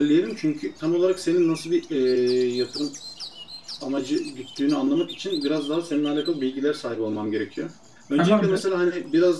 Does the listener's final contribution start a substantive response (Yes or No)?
No